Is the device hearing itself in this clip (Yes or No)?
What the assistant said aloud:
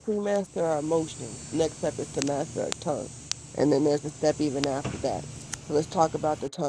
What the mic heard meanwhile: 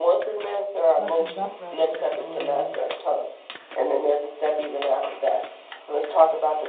Yes